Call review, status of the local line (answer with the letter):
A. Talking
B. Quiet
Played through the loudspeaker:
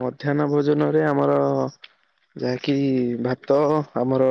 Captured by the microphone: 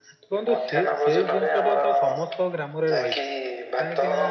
A